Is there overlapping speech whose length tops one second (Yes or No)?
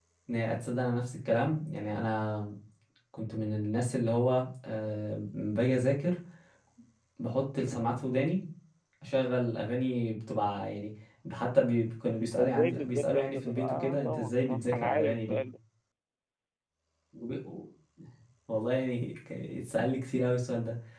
Yes